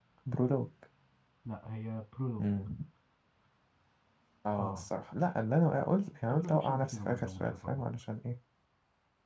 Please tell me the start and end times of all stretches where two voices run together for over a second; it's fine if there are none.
6.3-7.9

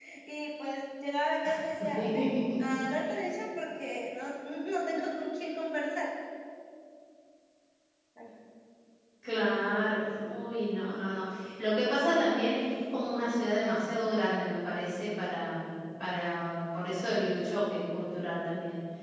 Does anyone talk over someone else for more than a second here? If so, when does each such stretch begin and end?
none

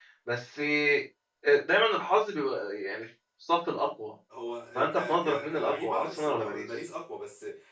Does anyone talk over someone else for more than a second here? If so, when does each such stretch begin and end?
4.8-6.7

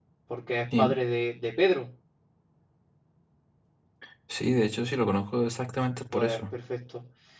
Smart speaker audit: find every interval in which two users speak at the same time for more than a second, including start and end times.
none

